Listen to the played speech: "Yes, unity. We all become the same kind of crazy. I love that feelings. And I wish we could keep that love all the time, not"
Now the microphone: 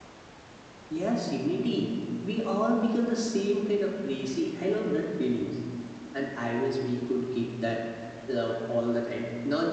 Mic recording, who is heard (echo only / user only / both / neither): echo only